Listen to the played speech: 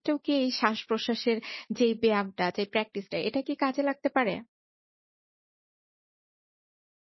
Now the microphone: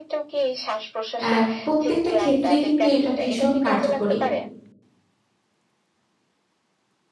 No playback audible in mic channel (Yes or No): No